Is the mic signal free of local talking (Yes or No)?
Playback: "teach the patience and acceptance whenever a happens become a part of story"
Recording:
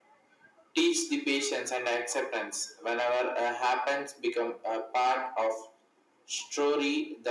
Yes